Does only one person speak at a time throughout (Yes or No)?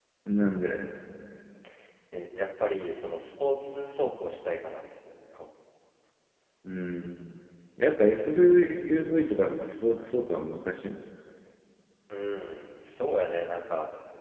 Yes